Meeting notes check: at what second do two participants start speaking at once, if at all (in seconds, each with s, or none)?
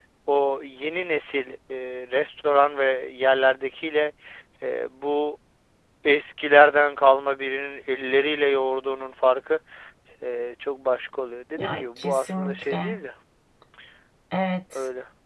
11.6 s